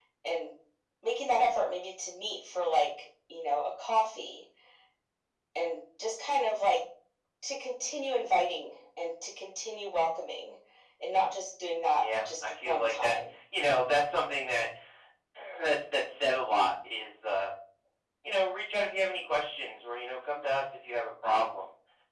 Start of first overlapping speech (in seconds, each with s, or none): 12.0 s